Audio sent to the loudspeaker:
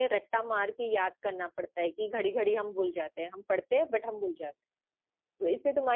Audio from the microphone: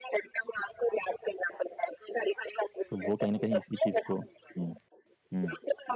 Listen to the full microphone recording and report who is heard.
both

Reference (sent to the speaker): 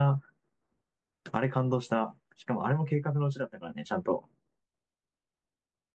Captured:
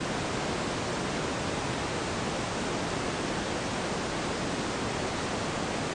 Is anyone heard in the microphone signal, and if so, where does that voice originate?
neither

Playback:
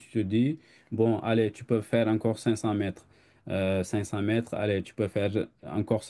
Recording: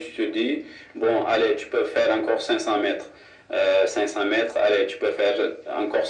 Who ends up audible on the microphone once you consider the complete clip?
echo only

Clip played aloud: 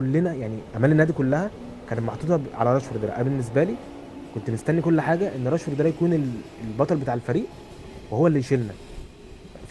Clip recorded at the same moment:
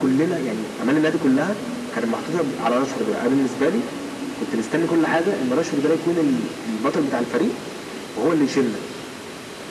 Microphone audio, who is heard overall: echo only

